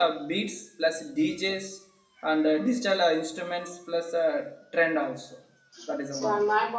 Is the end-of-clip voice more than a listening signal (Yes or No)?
Yes